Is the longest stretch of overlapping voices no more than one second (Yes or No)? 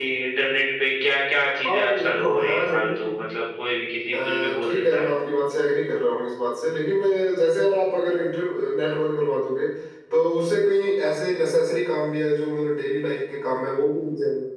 No